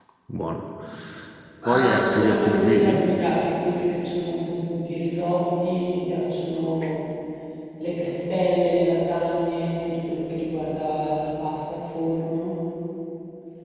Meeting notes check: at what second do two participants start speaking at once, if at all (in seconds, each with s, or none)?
1.6 s